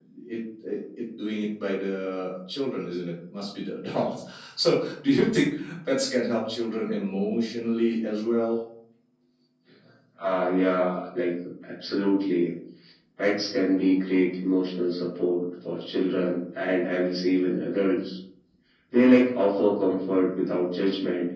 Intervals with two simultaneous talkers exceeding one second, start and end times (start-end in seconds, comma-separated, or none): none